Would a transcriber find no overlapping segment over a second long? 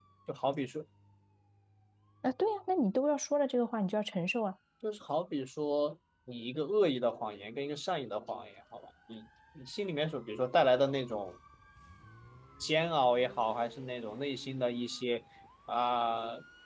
Yes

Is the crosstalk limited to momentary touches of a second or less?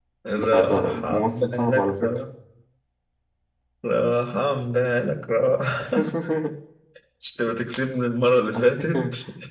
No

